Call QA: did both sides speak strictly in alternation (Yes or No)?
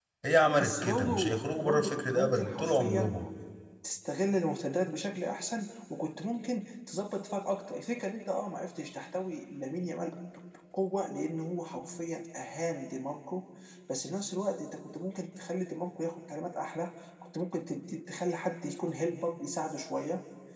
No